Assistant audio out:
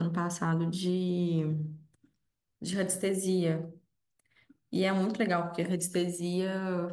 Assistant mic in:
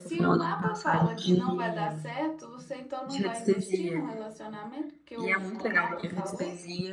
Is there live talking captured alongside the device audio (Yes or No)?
Yes